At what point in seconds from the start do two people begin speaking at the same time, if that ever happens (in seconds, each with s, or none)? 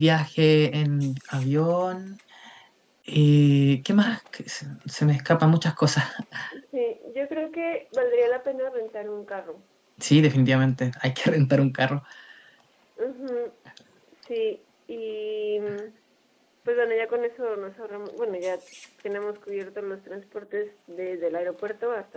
none